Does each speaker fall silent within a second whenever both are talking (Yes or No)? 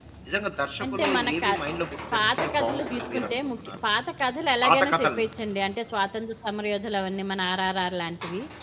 No